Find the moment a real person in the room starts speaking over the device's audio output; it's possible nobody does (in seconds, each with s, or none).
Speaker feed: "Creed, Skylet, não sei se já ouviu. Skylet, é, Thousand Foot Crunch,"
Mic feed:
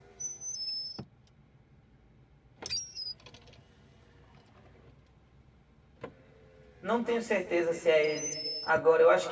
6.8 s